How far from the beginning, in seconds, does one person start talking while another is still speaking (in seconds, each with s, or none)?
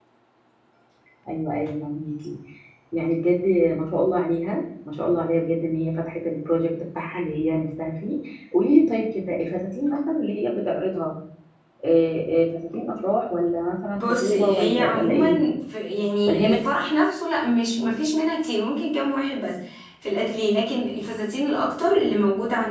14.0 s